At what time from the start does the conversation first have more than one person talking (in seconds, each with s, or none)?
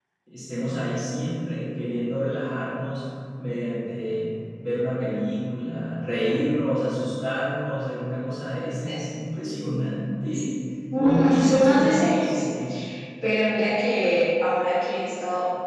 11.0 s